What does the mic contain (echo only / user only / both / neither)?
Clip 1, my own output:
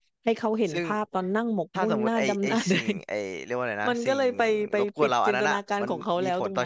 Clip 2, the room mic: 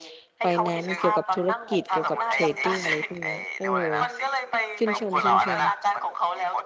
both